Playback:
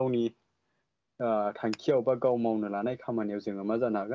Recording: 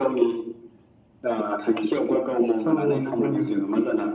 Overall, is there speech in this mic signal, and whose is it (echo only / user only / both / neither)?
both